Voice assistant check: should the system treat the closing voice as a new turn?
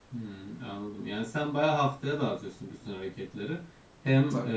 No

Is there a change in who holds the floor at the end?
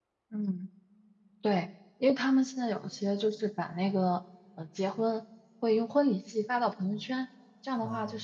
No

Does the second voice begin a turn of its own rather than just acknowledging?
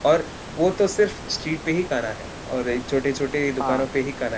No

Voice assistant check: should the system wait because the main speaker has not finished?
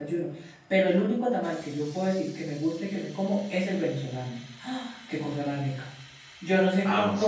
Yes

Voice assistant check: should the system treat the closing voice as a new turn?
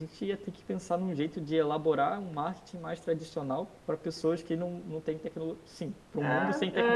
Yes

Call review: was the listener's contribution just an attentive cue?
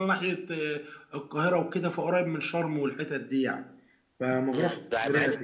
No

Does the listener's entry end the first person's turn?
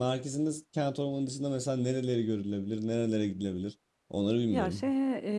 Yes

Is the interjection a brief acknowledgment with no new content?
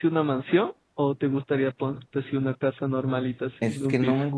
No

